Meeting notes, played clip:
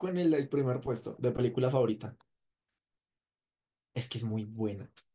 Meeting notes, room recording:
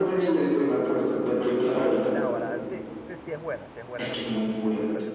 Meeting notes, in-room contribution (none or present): present